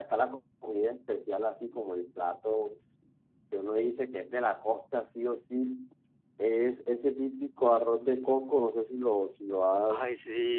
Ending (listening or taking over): listening